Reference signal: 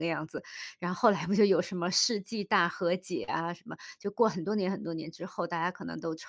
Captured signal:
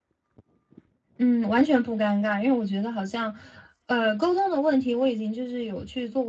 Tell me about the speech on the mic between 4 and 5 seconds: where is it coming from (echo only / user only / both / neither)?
user only